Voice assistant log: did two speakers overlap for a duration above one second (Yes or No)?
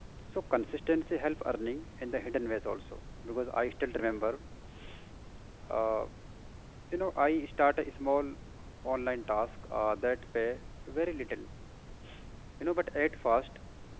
No